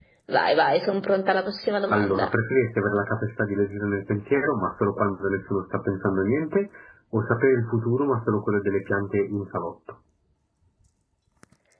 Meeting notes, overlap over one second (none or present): none